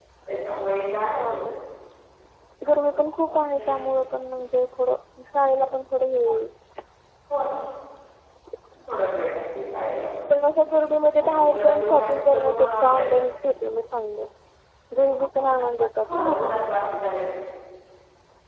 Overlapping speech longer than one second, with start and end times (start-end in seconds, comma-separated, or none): 11.3-13.1